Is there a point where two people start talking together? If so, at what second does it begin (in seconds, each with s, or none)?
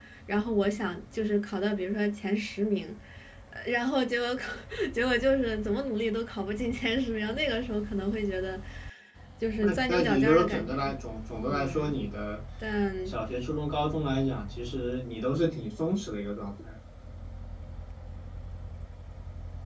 9.6 s